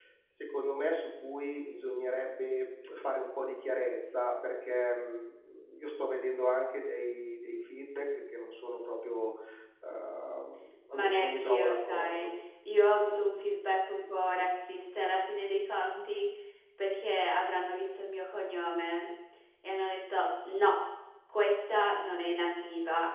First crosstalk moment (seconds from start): 10.9 s

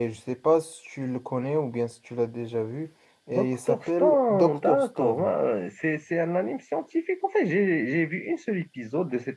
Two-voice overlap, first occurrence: 3.3 s

